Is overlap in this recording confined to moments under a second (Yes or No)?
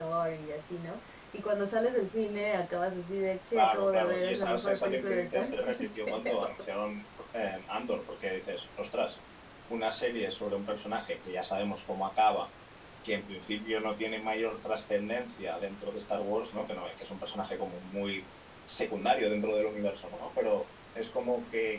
No